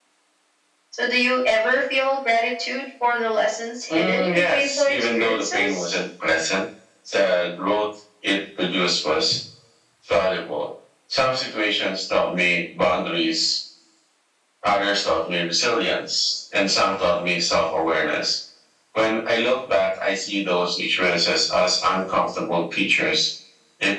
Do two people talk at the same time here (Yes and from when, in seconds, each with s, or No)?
Yes, from 3.9 s